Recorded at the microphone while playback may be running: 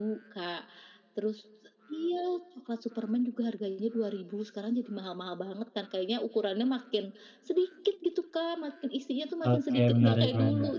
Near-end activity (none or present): present